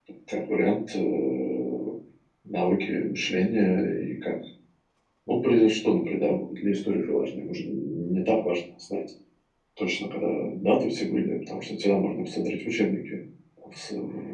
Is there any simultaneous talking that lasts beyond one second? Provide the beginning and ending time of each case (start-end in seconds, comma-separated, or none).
none